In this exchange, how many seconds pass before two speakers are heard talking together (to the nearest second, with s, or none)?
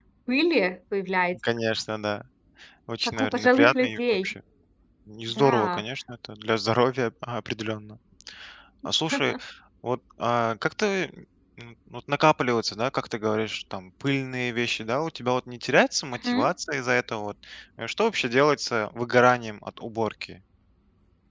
3 s